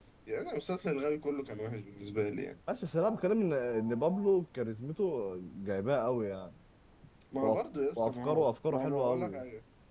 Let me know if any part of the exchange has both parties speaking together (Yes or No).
Yes